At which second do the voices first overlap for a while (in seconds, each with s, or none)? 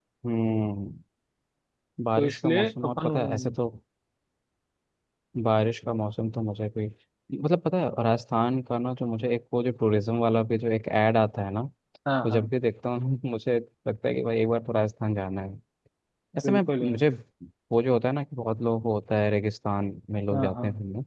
2.2 s